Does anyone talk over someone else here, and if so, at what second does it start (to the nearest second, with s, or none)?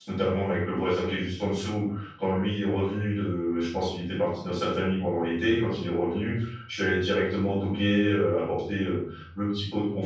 none